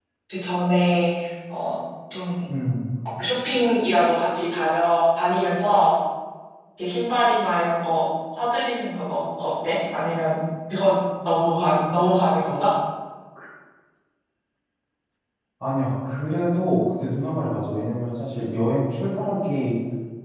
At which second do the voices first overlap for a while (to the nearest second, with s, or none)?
none